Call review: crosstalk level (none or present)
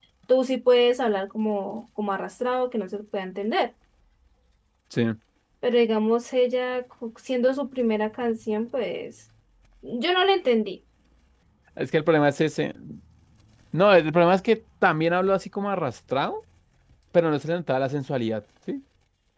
none